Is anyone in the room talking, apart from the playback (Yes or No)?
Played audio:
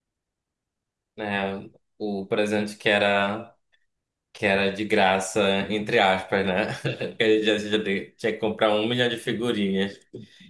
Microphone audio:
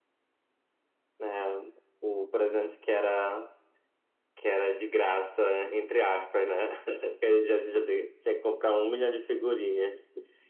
No